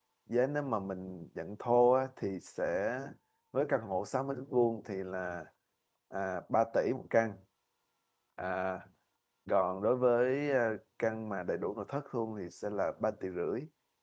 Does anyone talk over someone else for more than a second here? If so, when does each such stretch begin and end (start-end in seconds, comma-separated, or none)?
none